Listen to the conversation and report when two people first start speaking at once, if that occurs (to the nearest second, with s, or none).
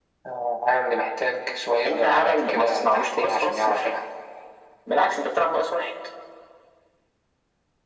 2 s